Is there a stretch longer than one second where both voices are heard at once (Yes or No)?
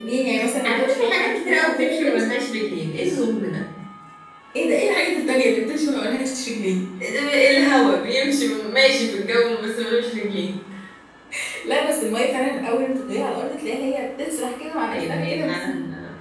Yes